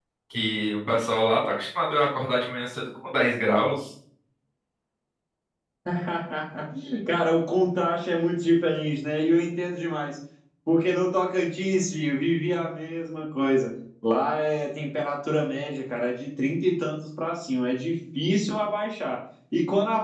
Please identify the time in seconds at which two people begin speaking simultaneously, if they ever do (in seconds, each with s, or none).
none